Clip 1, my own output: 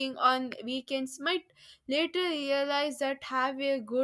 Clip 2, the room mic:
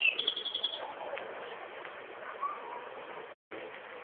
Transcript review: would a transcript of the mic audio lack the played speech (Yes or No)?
Yes